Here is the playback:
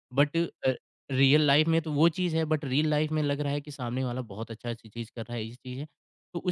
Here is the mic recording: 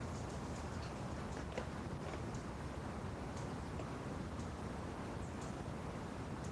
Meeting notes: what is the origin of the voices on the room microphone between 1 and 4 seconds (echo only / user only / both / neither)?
neither